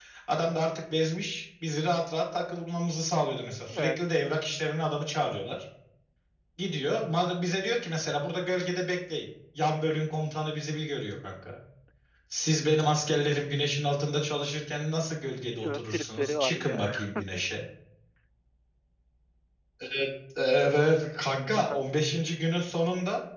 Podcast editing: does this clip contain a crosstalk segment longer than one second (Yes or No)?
Yes